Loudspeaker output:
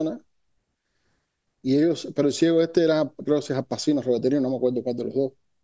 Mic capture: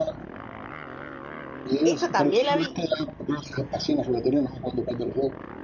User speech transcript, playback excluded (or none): Eso también la vi